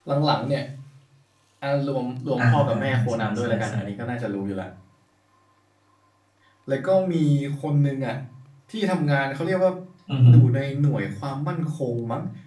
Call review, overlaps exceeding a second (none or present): present